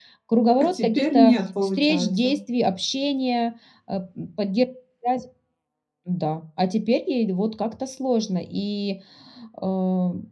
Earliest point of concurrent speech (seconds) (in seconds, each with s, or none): 0.6 s